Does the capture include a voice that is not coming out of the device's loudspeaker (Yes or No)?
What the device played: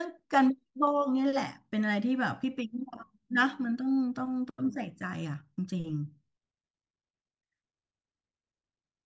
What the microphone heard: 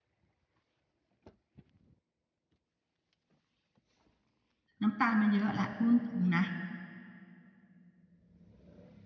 Yes